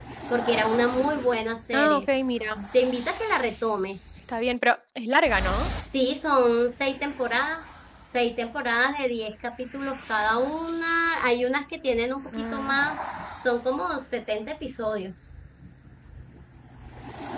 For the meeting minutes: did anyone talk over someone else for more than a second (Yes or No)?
No